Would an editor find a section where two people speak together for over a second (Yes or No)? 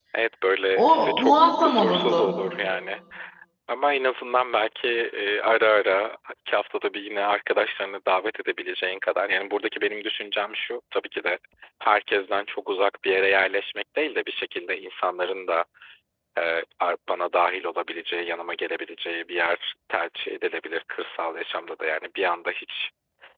Yes